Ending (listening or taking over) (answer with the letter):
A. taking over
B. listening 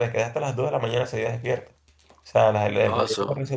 B